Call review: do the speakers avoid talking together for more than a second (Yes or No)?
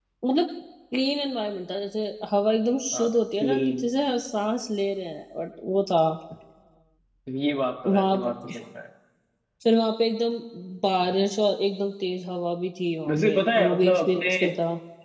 No